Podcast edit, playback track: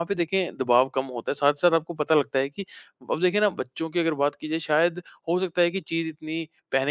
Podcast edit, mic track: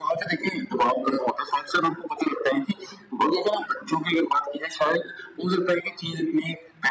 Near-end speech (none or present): none